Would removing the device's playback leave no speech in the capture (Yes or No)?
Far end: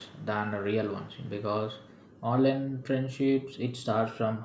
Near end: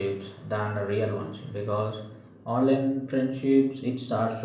Yes